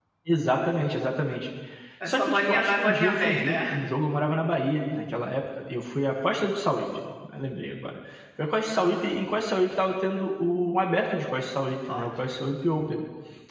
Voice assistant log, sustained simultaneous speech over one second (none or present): present